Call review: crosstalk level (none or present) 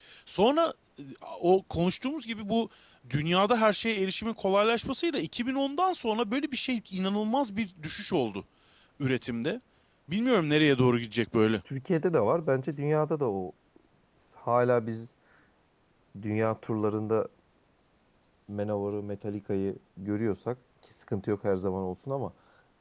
none